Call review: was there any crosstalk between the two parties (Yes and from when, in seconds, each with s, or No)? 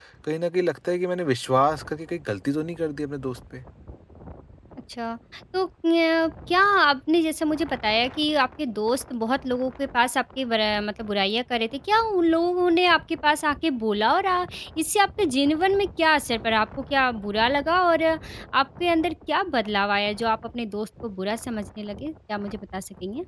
No